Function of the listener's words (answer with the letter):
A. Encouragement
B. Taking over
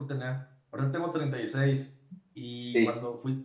A